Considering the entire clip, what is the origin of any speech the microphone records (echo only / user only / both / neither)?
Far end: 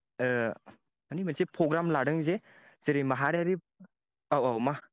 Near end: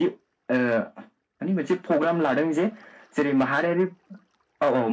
echo only